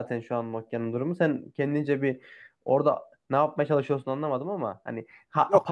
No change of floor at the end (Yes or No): Yes